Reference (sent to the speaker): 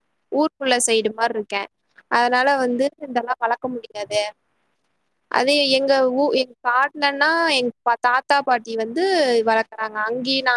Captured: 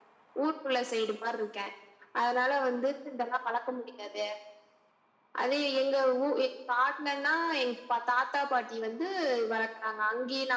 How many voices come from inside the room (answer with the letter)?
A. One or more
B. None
B